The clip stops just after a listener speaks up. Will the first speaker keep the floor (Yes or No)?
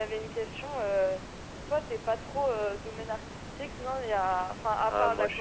No